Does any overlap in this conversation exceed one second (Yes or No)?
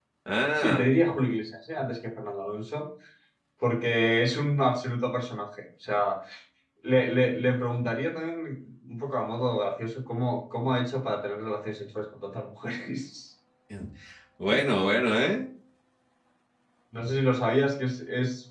No